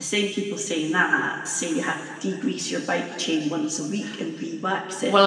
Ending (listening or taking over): taking over